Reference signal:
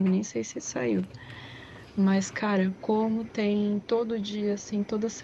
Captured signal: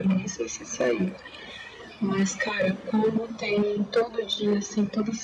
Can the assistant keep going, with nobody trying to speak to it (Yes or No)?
Yes